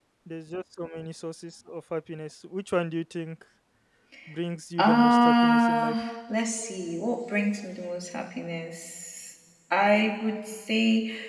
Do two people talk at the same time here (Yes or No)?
Yes